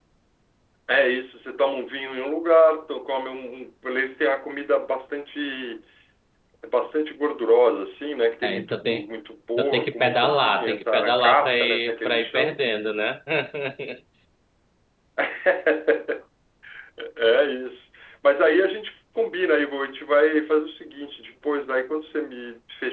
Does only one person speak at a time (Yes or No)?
No